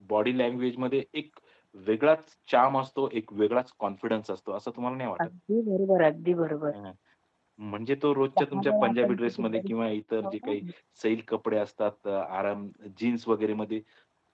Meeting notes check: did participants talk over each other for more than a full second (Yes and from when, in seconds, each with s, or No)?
Yes, from 8.4 s